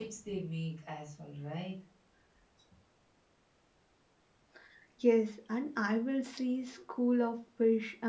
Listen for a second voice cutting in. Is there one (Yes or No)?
No